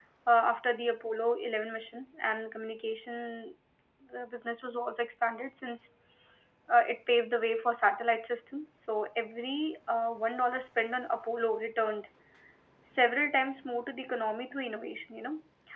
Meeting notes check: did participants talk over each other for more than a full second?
No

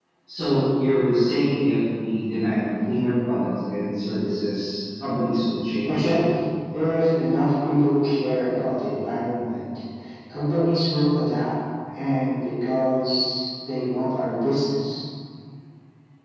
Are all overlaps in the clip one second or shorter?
Yes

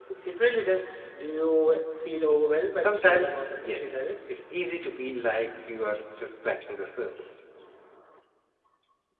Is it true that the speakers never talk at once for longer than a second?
No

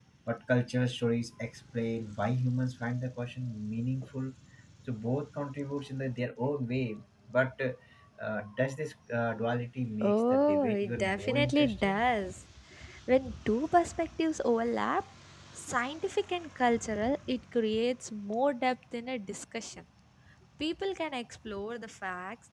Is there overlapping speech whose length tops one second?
Yes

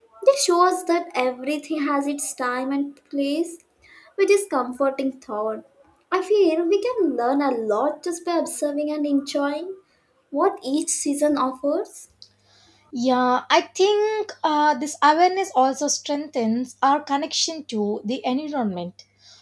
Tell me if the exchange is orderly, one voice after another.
Yes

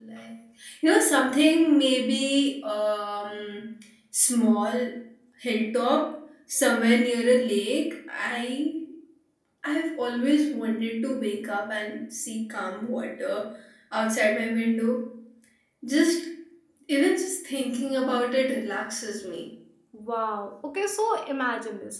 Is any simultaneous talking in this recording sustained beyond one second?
No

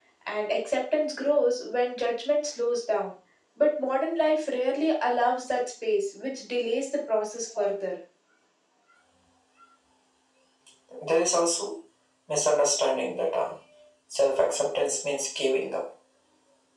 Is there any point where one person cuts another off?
No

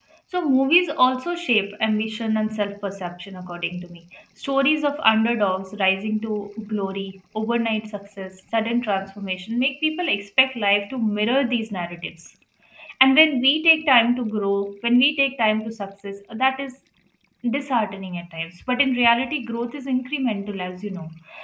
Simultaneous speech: No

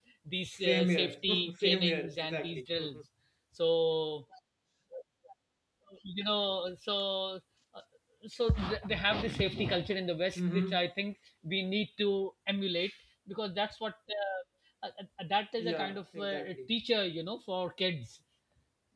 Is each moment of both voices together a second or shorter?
No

